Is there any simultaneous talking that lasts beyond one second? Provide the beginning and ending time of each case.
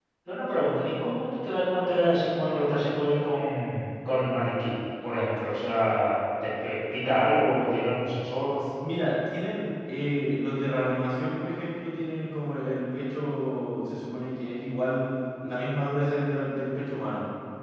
none

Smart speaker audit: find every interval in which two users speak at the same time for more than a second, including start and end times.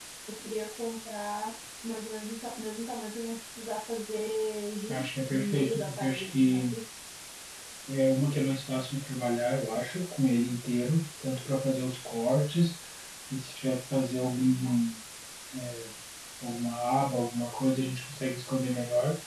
4.9-6.6

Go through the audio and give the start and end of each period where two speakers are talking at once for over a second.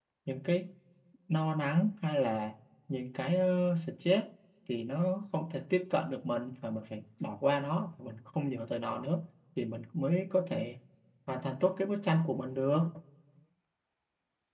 none

